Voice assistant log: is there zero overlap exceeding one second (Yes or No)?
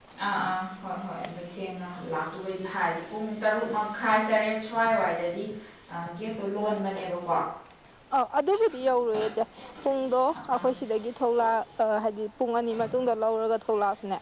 Yes